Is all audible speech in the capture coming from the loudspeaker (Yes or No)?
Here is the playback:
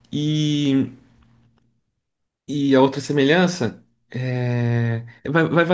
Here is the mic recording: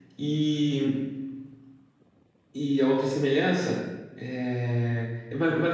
Yes